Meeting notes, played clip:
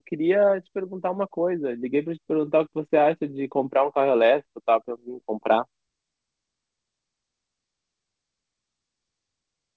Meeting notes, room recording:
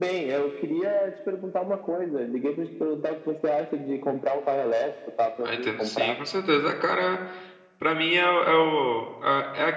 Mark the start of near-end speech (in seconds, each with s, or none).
5.4 s